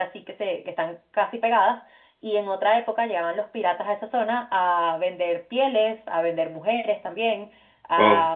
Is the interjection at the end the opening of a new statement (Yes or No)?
No